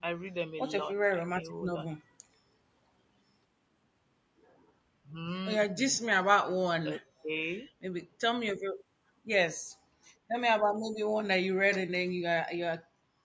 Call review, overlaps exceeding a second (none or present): present